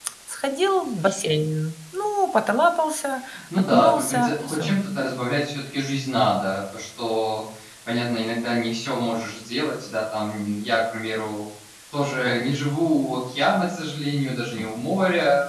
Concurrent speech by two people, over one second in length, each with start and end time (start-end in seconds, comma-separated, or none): 3.6-4.8